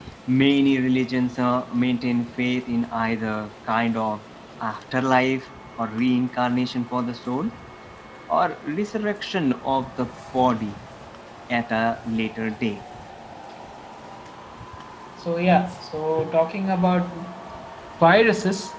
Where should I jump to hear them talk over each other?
none

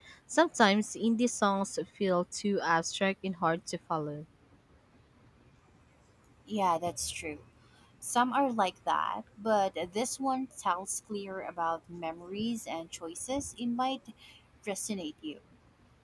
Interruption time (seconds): none

